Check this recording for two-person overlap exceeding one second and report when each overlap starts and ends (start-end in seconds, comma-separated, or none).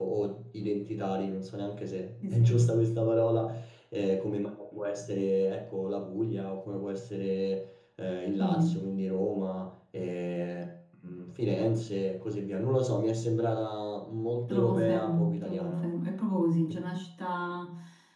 14.5-15.9